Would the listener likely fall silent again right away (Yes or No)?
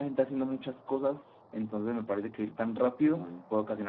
Yes